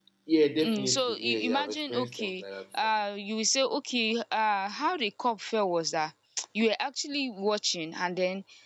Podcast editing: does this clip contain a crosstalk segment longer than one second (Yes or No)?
Yes